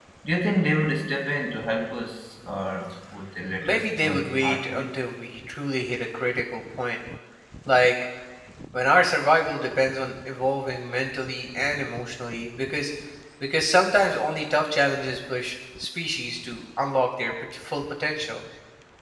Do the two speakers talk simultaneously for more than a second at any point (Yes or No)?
Yes